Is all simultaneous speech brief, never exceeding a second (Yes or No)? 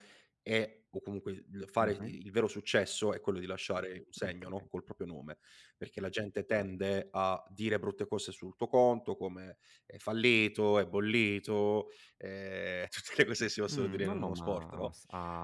No